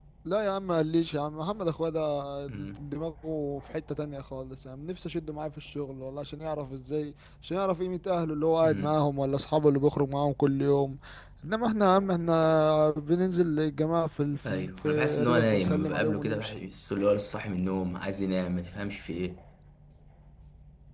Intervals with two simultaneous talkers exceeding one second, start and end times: 14.5-16.5

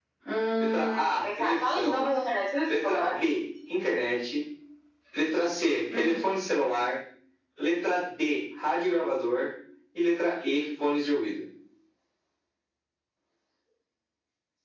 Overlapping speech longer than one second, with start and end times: 0.6-2.0

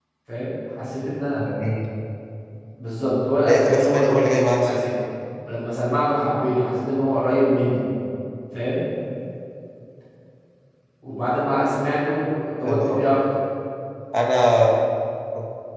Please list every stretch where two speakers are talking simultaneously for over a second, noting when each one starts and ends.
3.5-4.8

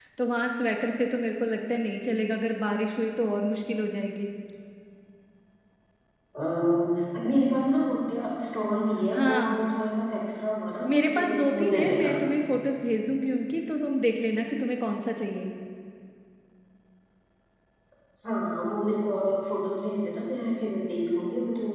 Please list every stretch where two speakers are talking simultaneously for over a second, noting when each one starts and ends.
10.9-12.2

